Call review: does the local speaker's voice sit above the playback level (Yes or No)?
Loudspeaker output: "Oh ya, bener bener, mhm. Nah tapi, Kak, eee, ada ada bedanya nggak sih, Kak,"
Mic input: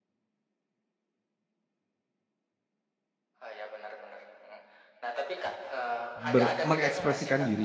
Yes